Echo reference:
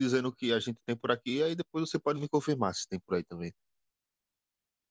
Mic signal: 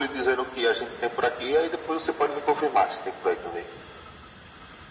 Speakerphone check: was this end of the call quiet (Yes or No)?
Yes